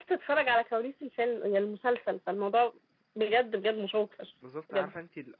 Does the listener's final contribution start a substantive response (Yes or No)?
Yes